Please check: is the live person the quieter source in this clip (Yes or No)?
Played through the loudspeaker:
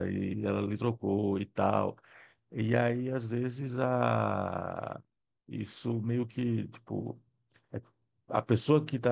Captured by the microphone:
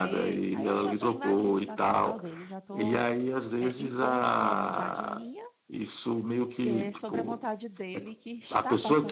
Yes